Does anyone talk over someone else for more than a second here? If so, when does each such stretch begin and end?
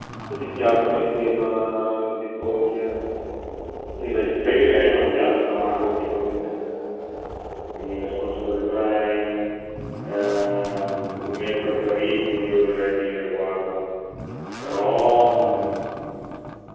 4.4-6.1

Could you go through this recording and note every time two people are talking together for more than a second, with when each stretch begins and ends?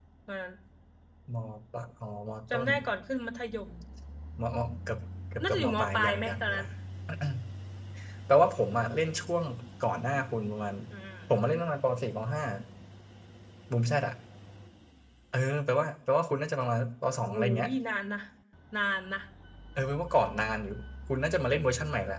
5.4-6.7

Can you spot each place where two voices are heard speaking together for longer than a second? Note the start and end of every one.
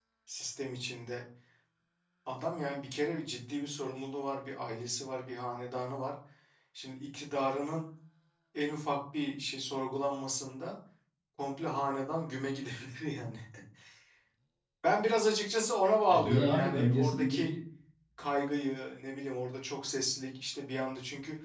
16.1-17.5

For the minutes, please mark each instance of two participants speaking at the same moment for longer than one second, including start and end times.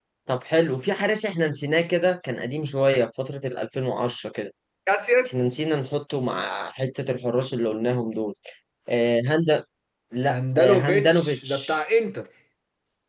10.3-11.8

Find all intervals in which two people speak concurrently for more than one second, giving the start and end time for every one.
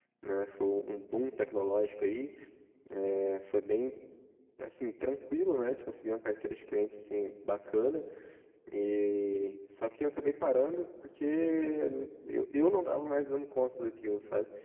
none

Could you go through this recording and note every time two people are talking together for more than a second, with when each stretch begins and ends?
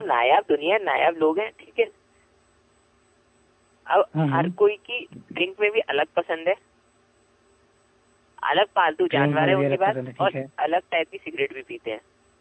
9.1-10.3

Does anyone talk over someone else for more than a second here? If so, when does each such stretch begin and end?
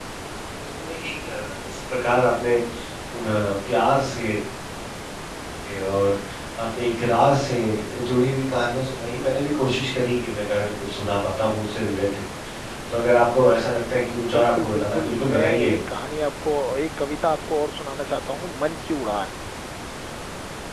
14.3-15.7

